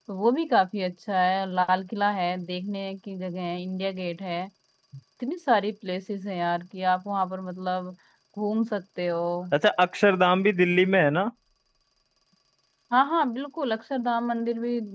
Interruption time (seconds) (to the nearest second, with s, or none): none